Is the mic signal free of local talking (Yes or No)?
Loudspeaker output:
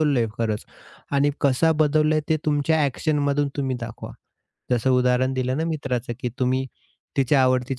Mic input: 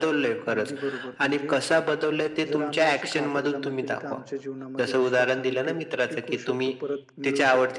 No